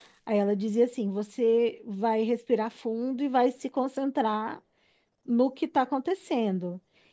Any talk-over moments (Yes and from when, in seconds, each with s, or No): No